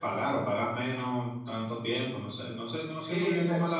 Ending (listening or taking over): taking over